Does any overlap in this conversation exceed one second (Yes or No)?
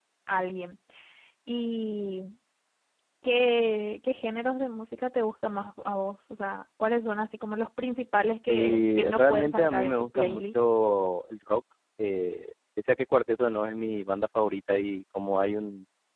Yes